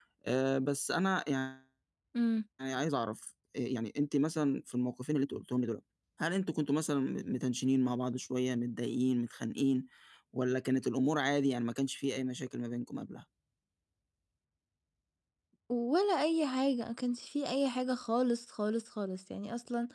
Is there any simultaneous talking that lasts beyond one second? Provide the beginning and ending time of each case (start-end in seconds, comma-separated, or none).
none